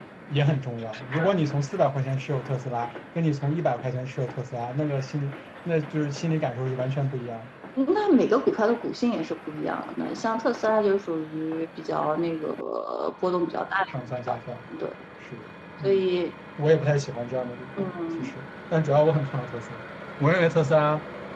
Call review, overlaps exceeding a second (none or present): none